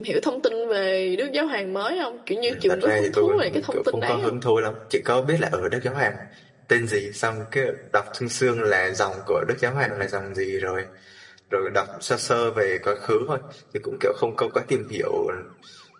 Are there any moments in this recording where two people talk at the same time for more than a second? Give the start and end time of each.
2.5-4.4

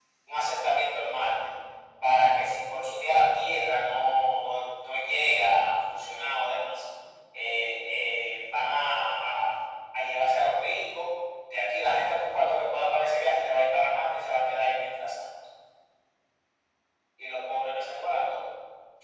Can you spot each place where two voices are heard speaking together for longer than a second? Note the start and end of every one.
none

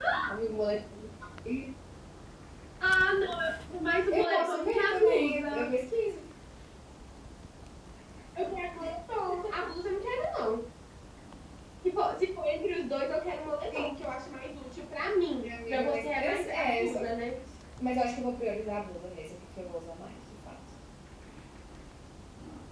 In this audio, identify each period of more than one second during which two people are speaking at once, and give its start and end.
4.1-5.7, 15.4-17.0

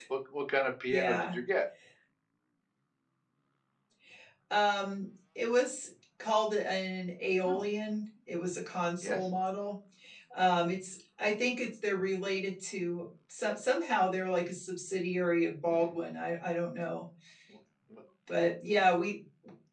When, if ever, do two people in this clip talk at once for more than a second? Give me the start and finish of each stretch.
none

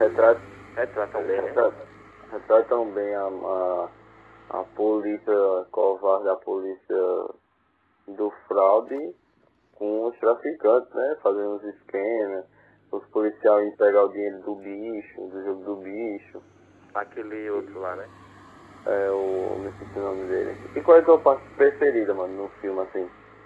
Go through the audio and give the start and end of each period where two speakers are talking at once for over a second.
none

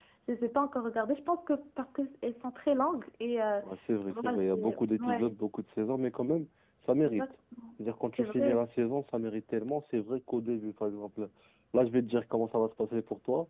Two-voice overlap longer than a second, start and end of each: 4.1-5.3

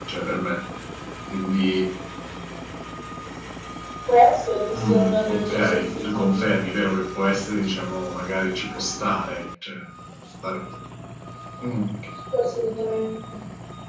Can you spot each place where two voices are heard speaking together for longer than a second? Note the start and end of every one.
4.7-6.3

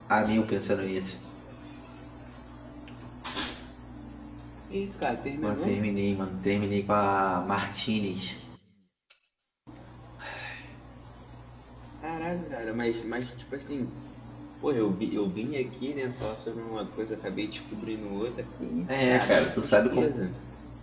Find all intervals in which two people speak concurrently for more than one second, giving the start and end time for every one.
18.9-20.1

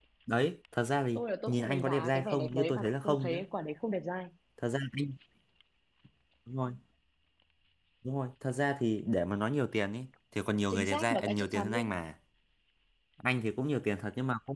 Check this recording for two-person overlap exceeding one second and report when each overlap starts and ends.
1.1-3.4, 10.7-11.9

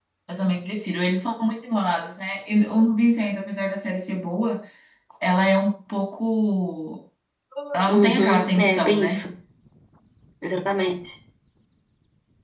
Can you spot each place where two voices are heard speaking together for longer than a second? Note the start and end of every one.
7.9-9.2

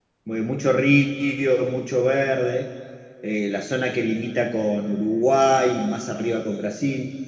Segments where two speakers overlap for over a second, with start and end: none

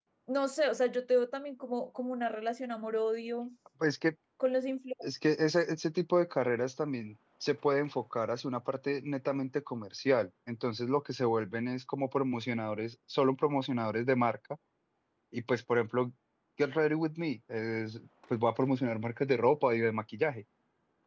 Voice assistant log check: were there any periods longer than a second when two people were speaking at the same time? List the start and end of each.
none

